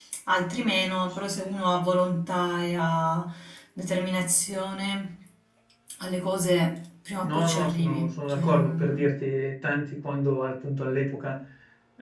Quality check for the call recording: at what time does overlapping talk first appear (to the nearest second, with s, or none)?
7 s